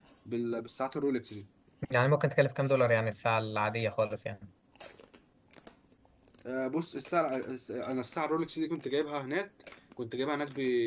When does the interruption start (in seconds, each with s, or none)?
none